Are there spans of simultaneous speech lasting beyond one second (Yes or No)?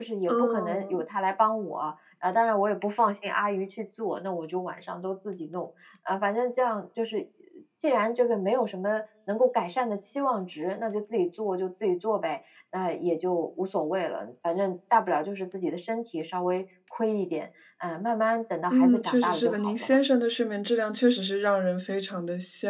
Yes